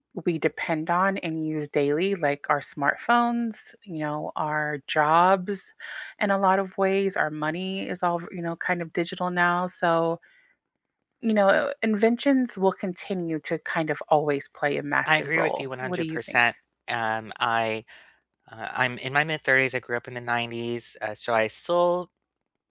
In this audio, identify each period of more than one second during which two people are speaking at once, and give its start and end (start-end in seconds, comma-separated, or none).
15.1-16.4